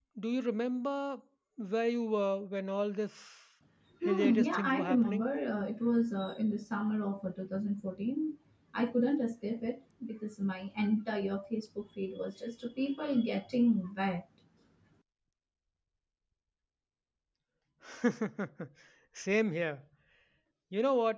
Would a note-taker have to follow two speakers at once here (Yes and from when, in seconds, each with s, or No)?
Yes, from 4.0 s